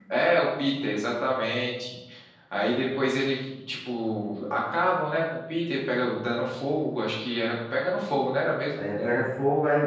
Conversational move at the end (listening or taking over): taking over